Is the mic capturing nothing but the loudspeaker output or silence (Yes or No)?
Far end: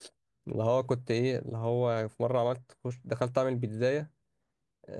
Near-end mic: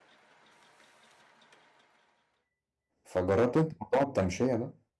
No